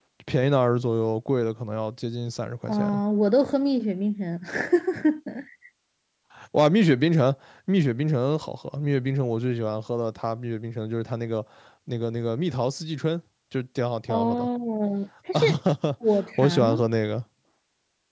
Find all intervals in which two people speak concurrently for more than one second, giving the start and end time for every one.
none

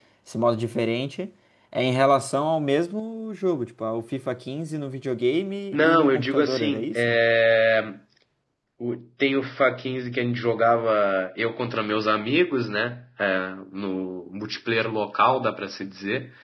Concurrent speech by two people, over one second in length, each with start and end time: 5.7-7.2

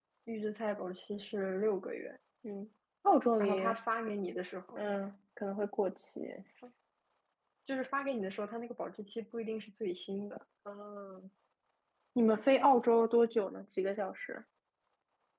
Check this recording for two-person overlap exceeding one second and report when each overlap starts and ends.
none

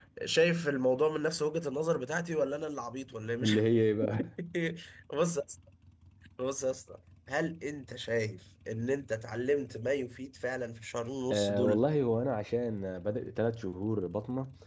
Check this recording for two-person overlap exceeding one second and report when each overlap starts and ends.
none

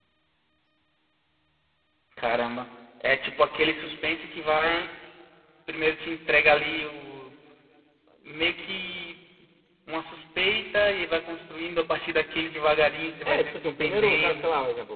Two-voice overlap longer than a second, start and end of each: 13.2-14.5

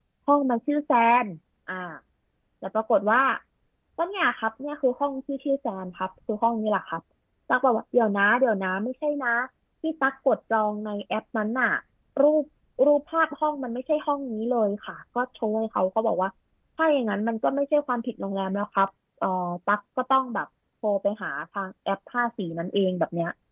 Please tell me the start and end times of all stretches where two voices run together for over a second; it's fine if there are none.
none

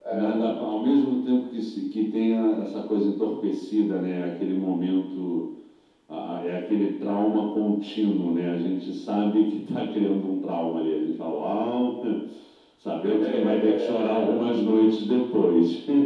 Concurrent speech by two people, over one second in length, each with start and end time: 13.0-14.5

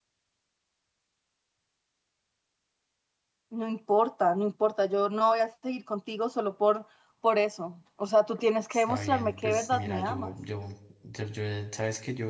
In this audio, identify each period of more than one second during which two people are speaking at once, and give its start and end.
8.7-10.3

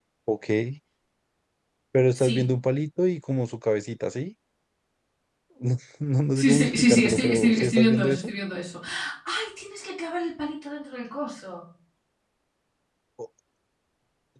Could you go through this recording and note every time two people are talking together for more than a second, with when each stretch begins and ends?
6.4-8.3

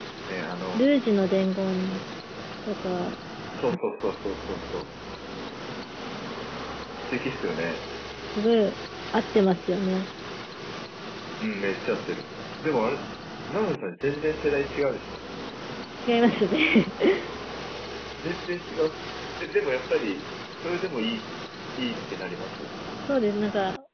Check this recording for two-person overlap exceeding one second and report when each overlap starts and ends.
none

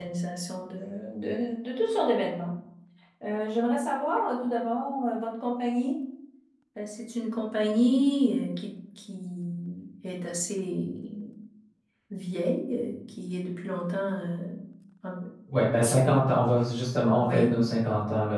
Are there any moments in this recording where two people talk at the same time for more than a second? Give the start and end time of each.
none

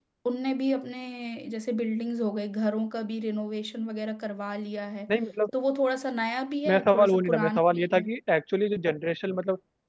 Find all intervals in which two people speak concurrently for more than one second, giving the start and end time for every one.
6.7-8.0

